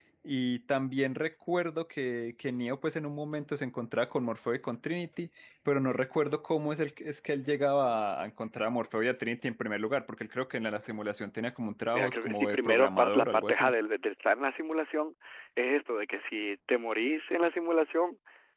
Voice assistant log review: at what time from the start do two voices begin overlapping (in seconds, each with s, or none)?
11.9 s